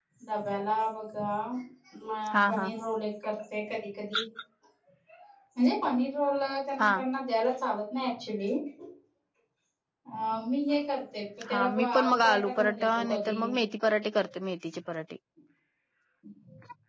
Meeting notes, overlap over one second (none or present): present